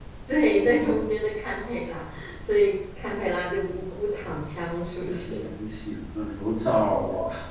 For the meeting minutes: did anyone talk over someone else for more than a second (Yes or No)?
No